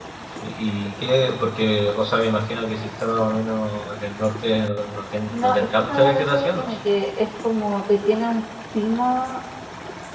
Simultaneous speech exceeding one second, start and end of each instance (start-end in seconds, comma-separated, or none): 5.3-6.8